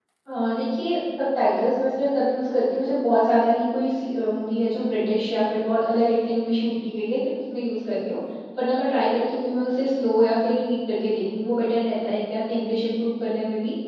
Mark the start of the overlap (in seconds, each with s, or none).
none